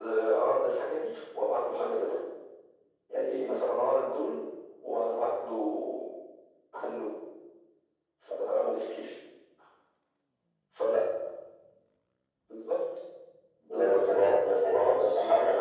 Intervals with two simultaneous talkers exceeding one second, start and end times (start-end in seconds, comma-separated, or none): none